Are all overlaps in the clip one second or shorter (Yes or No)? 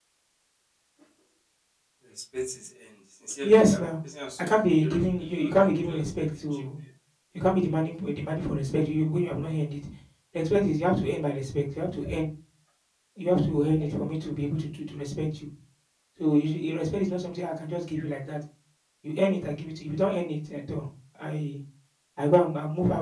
No